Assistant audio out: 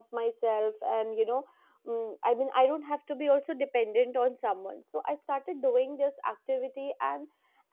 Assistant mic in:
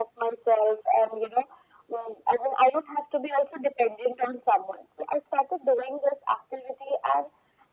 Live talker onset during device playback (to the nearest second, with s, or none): none